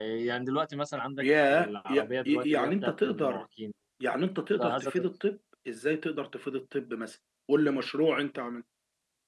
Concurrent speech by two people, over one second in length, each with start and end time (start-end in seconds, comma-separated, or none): 1.2-3.4